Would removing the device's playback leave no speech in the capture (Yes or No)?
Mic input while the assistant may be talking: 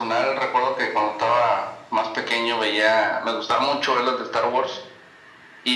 Yes